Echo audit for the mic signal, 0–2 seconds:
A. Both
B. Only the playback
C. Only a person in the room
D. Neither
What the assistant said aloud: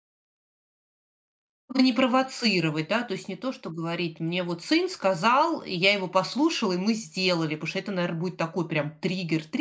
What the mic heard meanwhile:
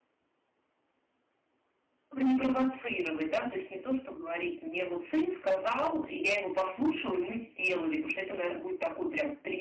D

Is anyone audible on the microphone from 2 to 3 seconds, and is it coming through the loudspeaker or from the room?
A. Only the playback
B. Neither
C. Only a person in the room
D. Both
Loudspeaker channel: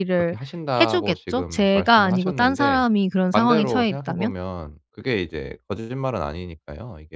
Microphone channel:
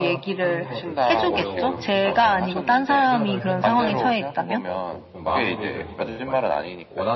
D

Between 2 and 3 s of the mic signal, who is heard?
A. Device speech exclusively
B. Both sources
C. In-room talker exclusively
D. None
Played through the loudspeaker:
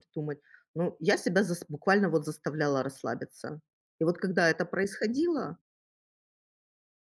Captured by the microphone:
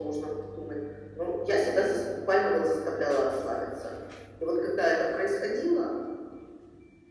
A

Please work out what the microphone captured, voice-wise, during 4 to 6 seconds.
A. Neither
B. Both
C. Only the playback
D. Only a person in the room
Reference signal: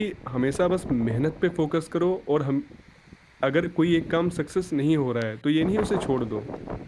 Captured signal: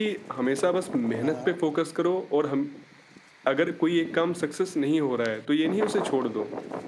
C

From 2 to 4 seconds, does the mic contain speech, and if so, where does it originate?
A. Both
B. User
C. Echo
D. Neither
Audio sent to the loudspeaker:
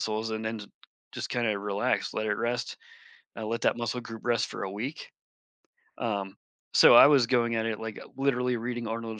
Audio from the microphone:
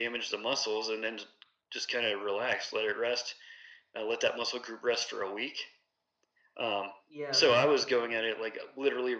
C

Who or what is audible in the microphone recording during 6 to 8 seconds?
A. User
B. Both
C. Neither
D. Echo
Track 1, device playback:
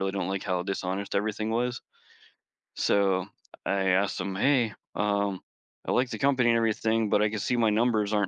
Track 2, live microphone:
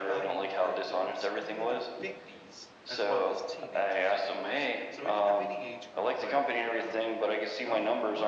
B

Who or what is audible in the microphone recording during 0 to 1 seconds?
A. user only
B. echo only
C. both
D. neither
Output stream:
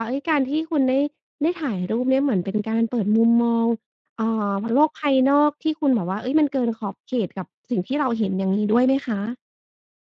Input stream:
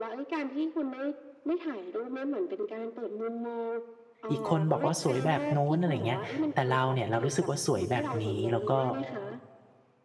B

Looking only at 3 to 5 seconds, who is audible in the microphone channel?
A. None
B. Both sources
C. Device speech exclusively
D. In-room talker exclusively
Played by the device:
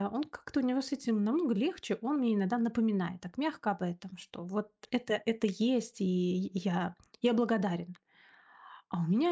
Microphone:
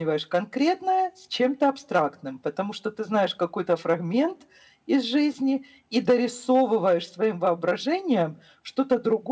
D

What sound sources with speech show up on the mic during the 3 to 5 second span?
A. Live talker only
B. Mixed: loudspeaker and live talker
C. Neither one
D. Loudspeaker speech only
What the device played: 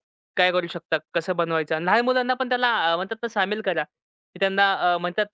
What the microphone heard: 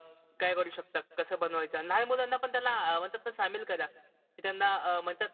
D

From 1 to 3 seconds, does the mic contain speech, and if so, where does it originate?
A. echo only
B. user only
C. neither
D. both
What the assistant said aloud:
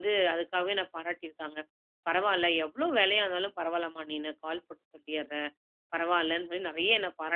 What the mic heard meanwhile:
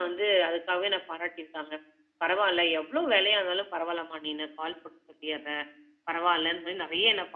A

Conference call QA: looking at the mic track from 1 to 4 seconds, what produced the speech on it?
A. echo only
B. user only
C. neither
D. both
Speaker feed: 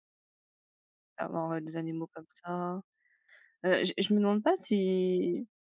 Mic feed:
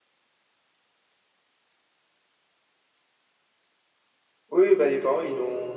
C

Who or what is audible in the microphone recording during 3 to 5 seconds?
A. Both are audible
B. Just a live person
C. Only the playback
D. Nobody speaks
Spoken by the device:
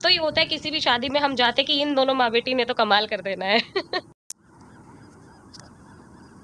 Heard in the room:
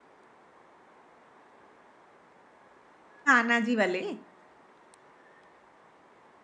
B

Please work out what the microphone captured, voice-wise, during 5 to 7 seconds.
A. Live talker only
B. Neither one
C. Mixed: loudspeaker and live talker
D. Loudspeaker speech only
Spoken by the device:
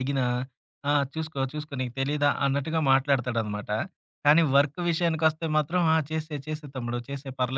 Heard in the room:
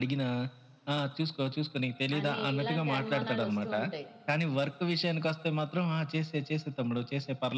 D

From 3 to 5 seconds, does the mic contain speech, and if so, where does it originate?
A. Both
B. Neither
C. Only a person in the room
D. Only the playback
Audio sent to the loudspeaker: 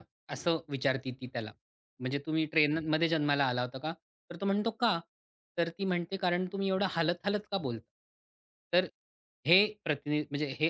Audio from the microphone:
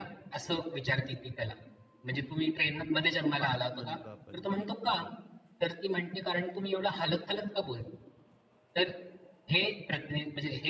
A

